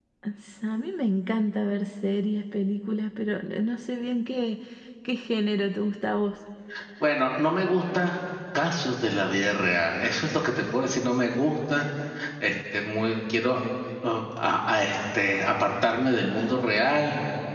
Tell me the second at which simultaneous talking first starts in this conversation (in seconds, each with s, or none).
none